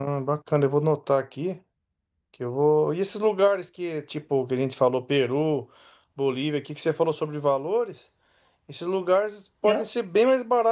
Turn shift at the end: No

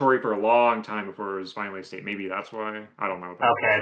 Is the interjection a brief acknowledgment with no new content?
No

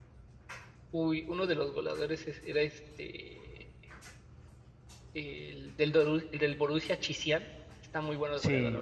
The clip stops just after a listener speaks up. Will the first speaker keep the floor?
No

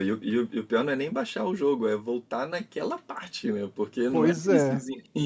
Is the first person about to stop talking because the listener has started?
Yes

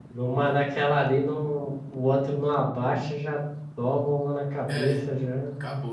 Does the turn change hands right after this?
Yes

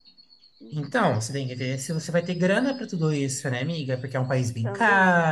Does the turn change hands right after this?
No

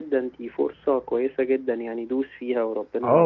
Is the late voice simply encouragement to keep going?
No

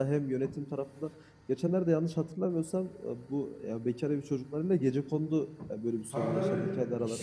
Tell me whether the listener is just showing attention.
No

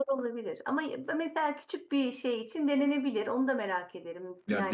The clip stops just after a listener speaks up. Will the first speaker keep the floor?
No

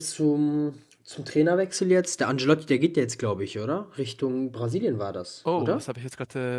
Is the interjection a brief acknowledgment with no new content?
No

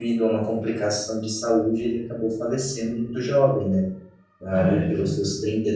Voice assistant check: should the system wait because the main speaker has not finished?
Yes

